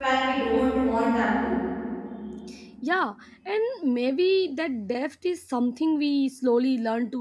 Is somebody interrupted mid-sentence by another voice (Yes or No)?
No